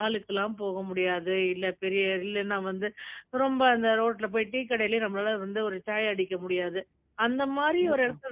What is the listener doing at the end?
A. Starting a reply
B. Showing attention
B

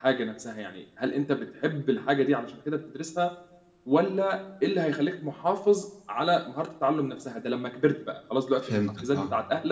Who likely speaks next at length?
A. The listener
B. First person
B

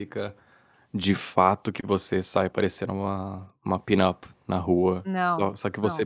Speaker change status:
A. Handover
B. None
B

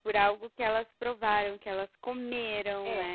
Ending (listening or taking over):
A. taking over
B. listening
A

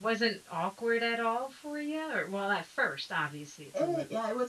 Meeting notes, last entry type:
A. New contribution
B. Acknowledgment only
A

